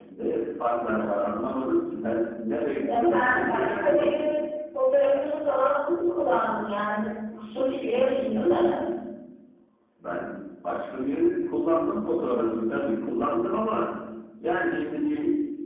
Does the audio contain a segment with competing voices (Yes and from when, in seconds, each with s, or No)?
Yes, from 2.8 s